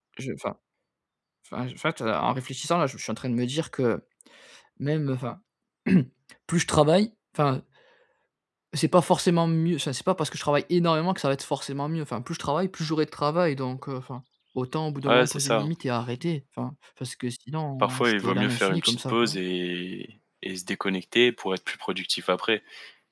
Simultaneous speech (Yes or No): Yes